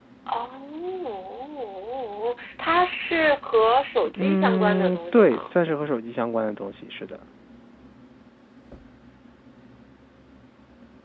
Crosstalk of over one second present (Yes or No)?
Yes